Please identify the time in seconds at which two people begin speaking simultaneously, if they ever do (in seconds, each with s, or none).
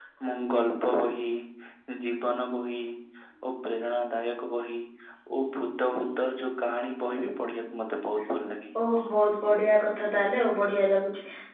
none